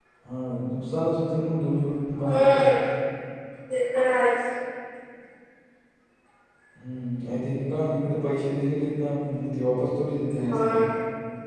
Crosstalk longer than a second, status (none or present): none